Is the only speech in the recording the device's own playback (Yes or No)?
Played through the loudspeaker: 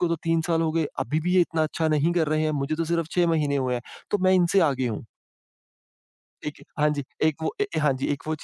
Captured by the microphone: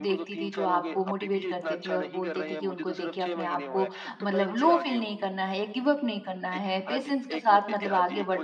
No